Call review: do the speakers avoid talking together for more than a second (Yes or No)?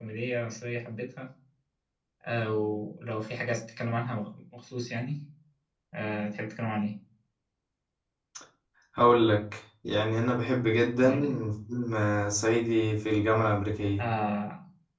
Yes